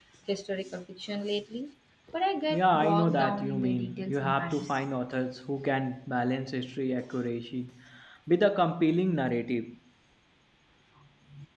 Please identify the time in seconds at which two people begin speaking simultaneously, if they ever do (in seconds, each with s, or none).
2.5 s